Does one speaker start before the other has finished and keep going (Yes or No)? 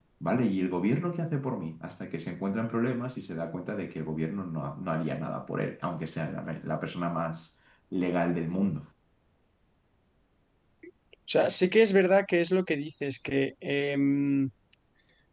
No